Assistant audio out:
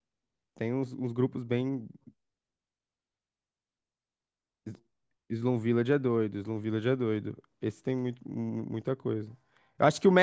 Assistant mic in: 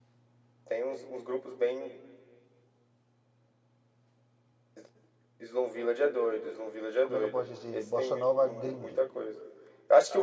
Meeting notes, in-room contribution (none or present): present